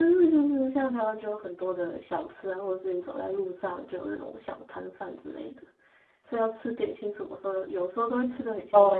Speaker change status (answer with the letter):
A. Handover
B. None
A